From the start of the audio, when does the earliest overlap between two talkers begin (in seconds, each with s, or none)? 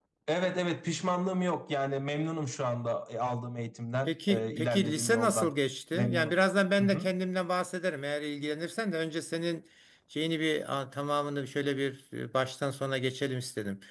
4.1 s